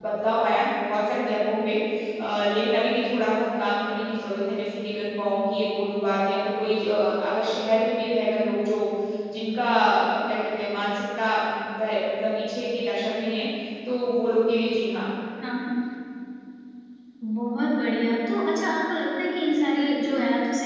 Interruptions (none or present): none